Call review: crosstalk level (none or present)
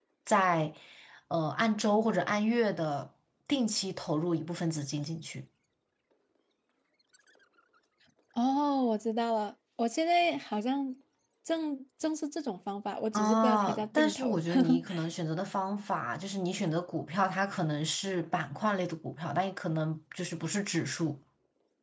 present